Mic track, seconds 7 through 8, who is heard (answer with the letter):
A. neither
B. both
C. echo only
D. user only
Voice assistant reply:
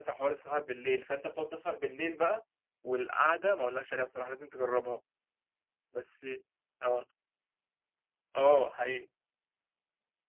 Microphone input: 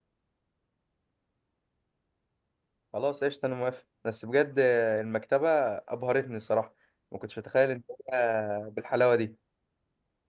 D